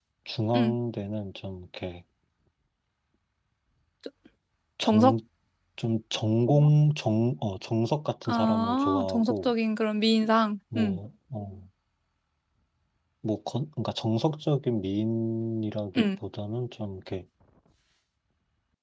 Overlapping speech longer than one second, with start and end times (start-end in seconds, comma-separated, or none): 8.3-9.5